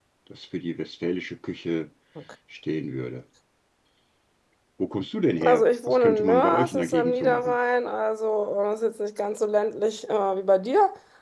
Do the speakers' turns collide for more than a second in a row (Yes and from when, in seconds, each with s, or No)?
Yes, from 5.4 s